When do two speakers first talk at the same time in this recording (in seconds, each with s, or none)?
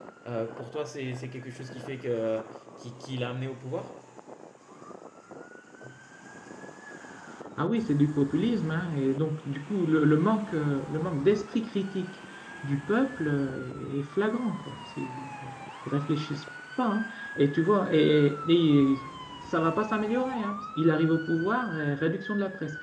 none